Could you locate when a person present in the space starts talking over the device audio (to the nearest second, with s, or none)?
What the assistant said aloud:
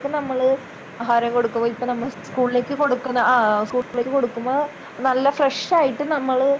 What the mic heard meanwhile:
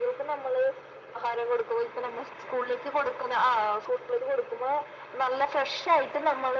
none